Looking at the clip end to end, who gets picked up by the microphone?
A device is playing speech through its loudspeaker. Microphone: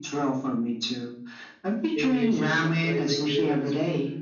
both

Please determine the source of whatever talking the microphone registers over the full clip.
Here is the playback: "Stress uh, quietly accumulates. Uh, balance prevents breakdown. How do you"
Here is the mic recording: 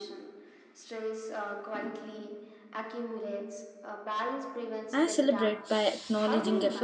both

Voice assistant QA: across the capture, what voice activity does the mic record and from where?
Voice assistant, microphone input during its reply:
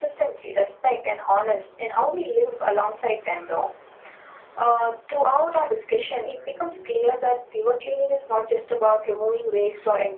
echo only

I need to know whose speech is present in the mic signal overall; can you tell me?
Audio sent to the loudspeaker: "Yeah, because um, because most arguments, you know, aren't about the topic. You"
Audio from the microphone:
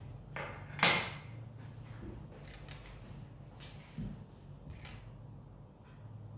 neither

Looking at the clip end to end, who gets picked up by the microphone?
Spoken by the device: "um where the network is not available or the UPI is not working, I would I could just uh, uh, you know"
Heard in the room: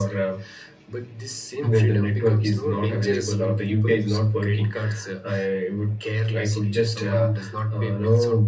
both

